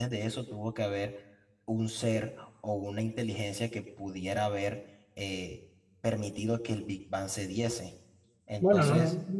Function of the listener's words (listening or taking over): taking over